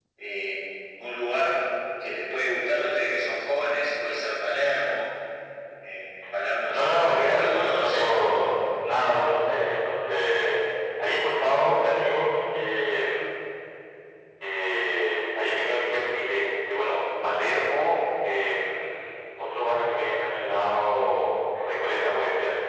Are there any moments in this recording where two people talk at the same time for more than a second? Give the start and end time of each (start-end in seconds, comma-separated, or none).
6.7-8.3